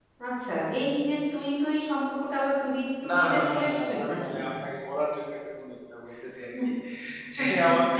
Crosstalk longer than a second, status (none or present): present